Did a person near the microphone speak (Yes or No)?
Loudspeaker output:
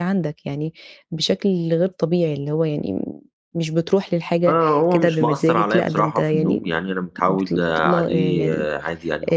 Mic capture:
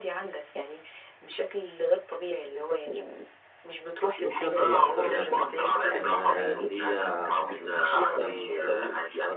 Yes